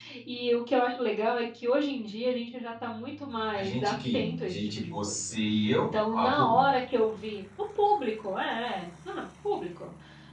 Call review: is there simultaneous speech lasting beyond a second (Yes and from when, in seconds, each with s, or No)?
Yes, from 3.5 s